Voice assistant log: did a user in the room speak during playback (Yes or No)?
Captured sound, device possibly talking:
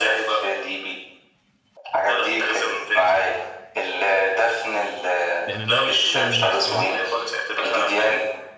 Yes